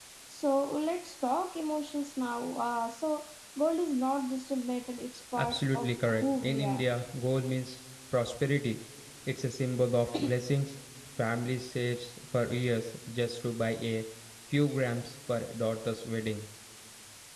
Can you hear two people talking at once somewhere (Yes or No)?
Yes